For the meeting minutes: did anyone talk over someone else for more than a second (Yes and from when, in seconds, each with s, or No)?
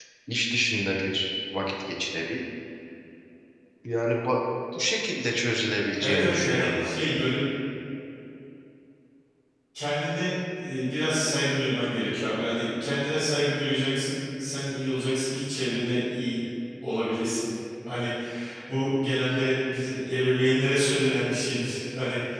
Yes, from 6.0 s